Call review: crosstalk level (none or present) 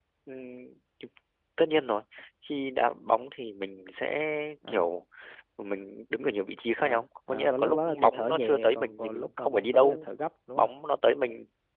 present